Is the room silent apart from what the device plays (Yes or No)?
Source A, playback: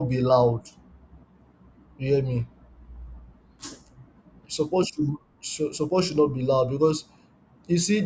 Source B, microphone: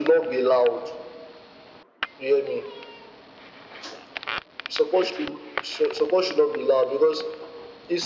Yes